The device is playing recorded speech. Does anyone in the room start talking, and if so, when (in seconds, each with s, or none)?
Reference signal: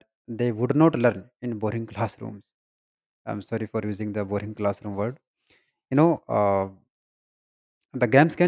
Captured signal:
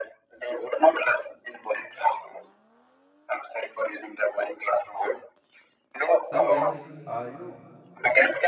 6.3 s